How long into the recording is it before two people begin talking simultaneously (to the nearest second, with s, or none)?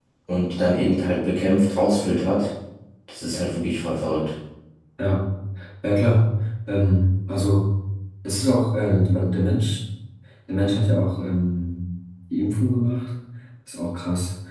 none